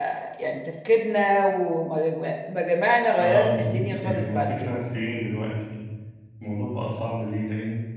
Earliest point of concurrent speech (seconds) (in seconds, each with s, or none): 3.2 s